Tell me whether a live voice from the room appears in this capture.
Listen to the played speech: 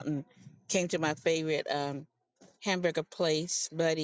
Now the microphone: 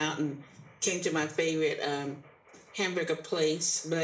No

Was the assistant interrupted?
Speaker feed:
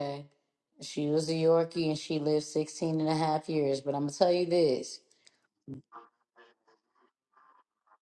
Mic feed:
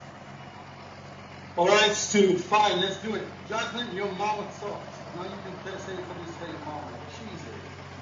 Yes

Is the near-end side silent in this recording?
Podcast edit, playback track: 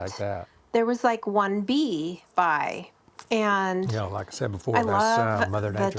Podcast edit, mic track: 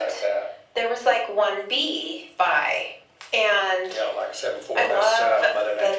Yes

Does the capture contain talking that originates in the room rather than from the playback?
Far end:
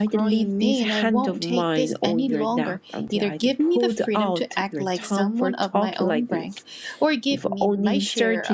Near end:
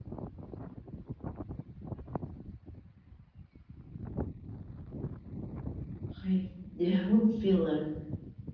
Yes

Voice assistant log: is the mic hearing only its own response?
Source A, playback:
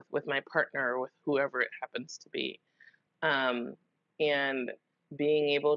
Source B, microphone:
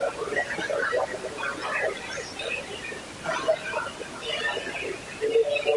Yes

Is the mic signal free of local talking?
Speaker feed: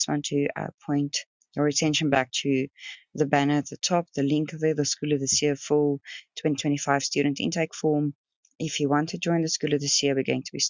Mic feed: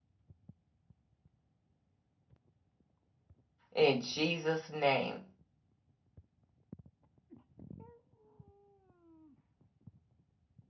No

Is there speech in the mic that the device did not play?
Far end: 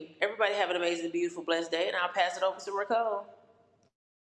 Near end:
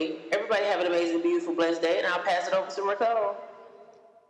No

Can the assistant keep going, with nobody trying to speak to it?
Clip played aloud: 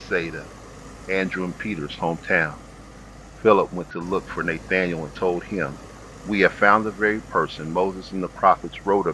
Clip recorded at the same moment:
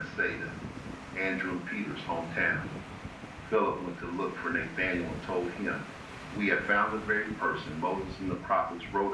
Yes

